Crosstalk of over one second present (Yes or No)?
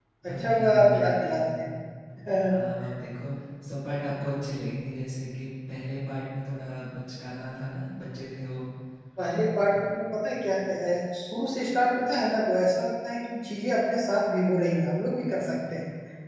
Yes